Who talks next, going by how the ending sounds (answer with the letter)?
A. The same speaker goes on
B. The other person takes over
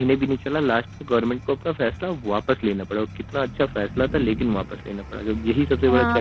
B